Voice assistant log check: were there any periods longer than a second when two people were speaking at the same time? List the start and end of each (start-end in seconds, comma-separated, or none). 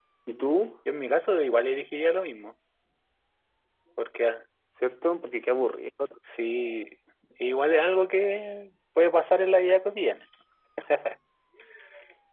none